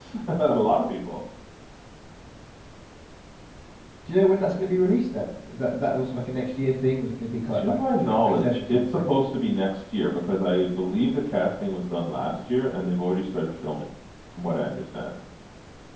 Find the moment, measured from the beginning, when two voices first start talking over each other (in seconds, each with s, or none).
7.5 s